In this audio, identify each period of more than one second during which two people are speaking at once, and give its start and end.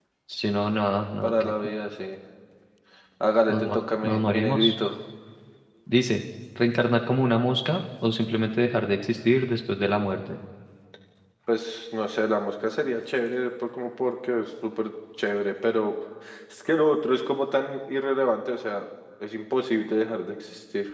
3.5-4.8

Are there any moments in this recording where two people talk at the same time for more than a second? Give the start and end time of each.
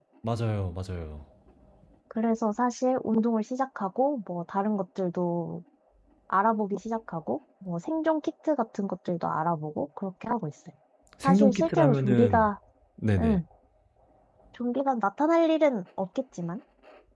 11.2-12.4

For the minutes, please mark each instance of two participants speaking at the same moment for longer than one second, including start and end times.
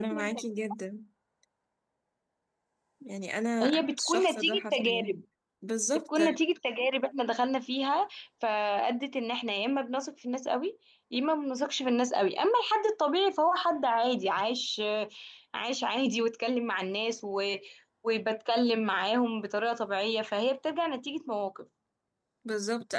3.6-5.1

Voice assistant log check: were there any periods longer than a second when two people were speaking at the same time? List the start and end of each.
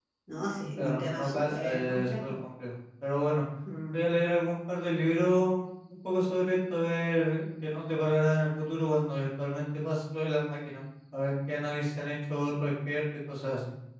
0.8-2.3

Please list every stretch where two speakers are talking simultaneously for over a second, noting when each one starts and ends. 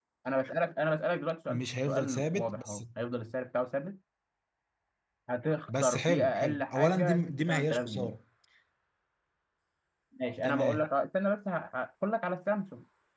1.5-2.8, 5.7-8.1

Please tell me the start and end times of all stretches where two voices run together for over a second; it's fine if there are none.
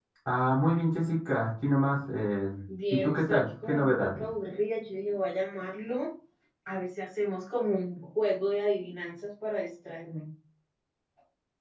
2.9-4.2

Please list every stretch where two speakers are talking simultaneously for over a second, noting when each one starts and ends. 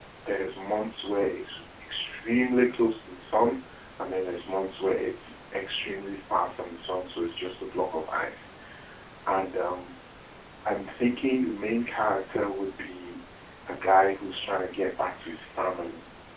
none

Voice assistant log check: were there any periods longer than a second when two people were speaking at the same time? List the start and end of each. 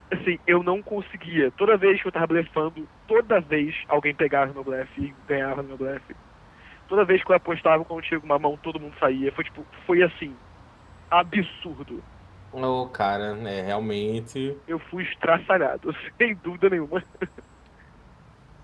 none

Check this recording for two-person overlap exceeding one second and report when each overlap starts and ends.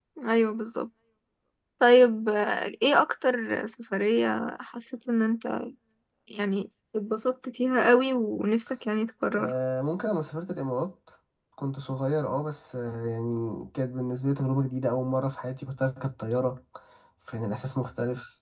none

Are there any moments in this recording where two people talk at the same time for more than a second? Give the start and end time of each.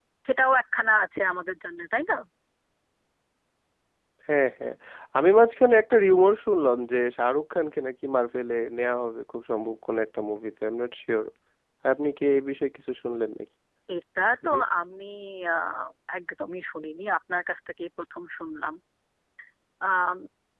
none

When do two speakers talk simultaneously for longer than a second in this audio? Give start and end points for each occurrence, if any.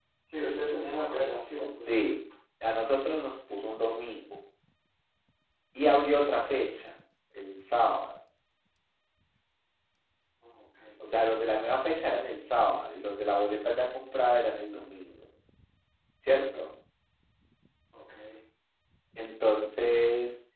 none

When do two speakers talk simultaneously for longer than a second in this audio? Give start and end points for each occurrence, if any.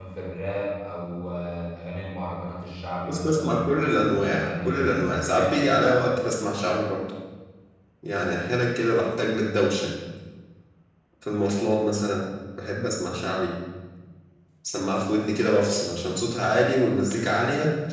3.1-6.2

